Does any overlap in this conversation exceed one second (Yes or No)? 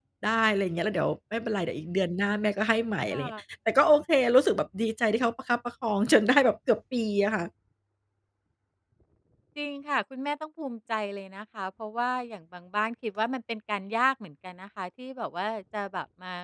No